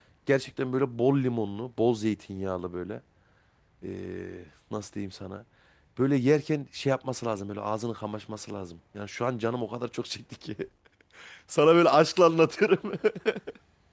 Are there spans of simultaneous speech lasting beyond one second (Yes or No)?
No